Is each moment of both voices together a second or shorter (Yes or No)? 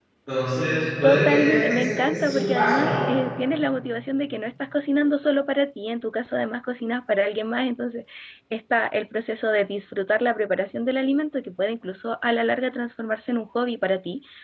No